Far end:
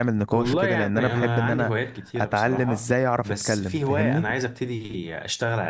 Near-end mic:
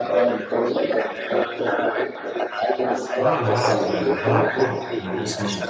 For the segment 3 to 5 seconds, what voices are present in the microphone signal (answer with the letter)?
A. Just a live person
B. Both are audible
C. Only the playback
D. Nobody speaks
B